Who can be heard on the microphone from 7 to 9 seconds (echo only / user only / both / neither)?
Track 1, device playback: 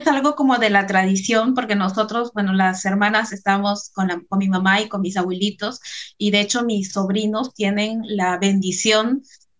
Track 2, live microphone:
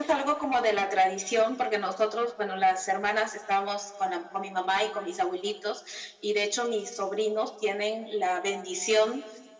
echo only